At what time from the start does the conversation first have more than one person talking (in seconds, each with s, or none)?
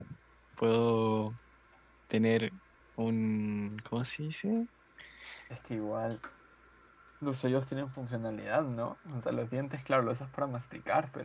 none